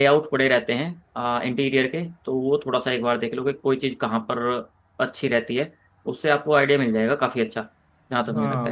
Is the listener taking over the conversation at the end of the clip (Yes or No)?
Yes